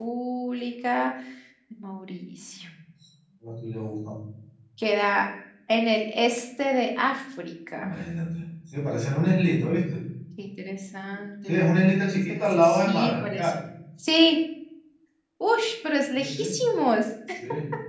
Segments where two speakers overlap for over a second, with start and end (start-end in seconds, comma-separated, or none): 12.3-13.5